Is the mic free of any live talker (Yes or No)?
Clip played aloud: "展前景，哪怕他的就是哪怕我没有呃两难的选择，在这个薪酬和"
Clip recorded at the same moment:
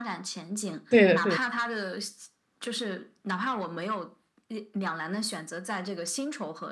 No